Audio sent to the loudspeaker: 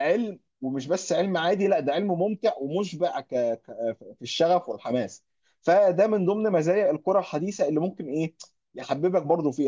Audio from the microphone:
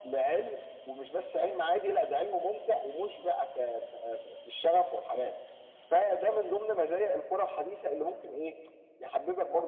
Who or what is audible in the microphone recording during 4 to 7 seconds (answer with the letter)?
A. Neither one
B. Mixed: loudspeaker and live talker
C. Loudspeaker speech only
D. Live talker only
C